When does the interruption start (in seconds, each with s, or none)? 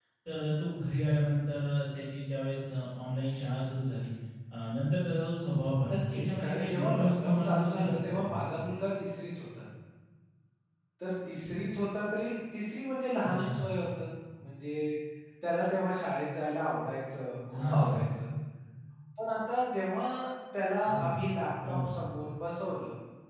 5.9 s